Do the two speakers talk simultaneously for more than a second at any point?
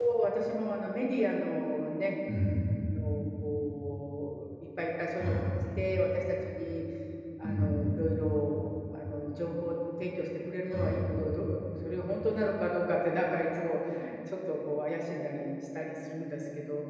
No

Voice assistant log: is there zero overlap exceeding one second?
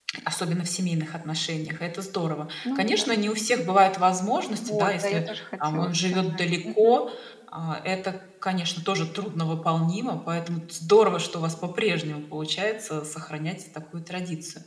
No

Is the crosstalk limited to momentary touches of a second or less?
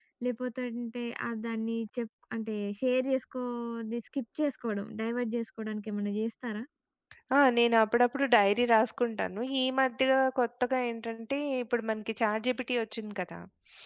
Yes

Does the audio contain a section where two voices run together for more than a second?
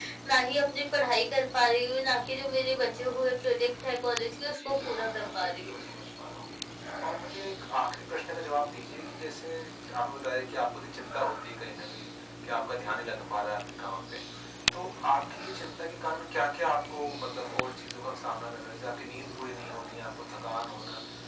Yes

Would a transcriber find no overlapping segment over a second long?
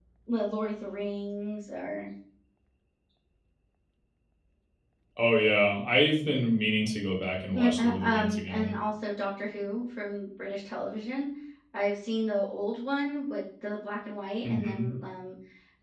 No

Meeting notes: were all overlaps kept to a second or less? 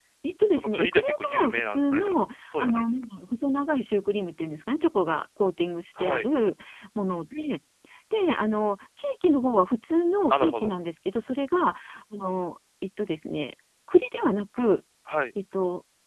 No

